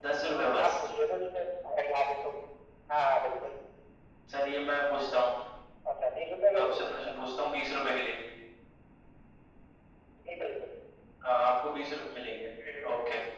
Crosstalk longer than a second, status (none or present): none